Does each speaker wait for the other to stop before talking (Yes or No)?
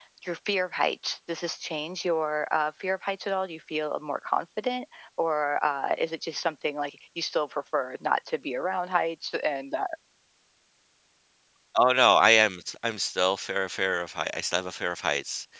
Yes